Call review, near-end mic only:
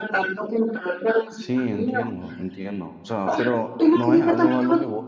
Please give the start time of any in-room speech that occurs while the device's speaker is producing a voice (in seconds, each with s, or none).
1.3 s